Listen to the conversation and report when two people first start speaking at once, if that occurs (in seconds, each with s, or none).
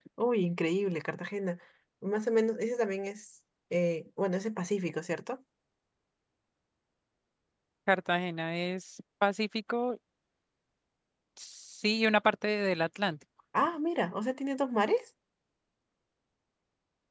none